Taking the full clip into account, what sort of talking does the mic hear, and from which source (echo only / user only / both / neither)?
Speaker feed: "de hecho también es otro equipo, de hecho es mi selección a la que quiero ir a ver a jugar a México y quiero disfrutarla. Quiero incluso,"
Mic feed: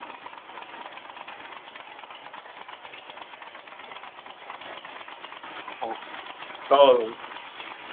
user only